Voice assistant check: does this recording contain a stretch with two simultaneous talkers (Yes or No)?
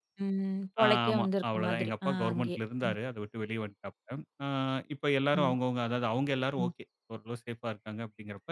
Yes